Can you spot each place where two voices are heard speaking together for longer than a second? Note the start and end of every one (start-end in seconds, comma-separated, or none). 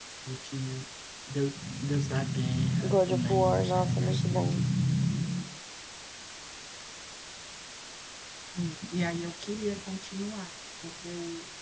2.8-4.6